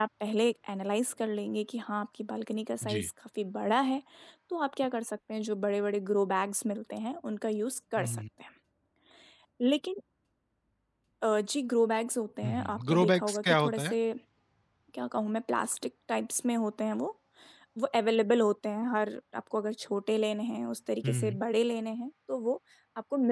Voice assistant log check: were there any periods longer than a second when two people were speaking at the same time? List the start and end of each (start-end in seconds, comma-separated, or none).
12.4-13.9